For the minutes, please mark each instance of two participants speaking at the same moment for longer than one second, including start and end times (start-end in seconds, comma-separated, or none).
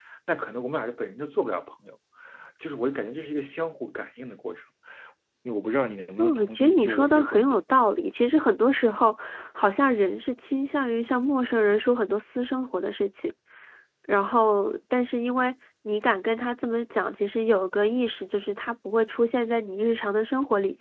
6.2-7.6